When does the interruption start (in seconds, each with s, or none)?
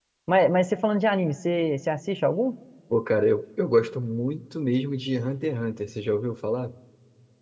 none